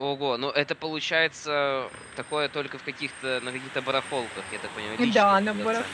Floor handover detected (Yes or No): Yes